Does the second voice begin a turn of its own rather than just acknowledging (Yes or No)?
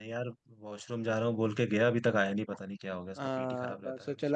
Yes